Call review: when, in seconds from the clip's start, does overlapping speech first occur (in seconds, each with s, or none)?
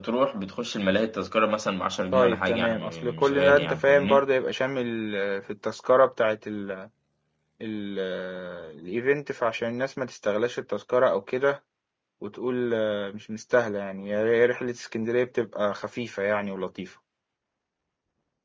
2.1 s